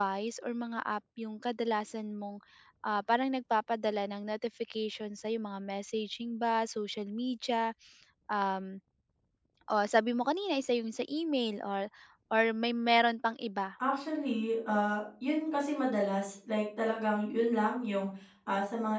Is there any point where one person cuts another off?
No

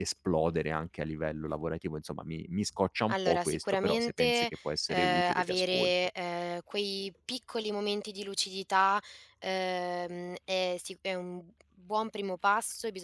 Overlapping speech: Yes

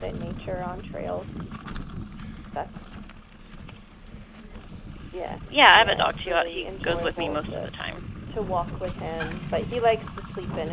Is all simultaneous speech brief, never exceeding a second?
No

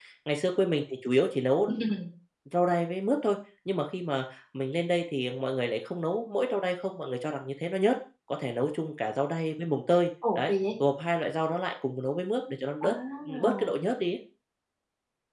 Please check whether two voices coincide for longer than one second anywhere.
No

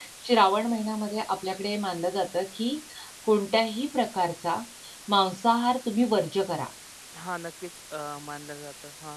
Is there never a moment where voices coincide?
Yes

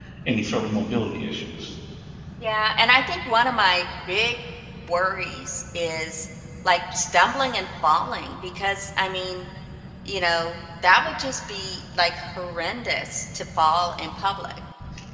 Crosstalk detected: No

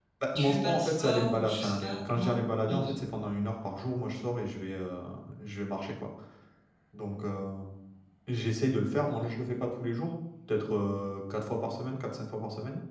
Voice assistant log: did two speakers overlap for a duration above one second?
Yes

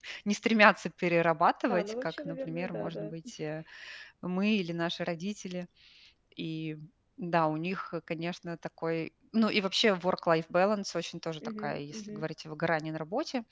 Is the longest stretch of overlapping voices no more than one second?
No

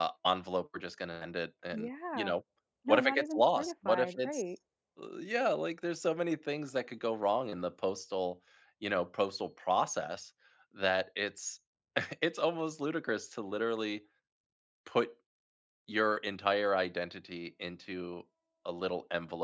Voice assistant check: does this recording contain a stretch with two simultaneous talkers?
Yes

